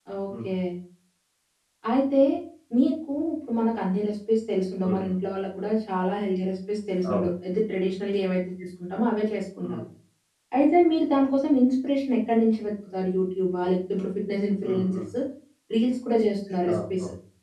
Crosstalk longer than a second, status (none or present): none